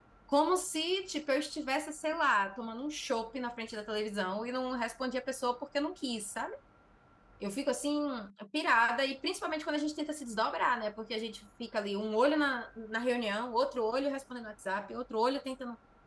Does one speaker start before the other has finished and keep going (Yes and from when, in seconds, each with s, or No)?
No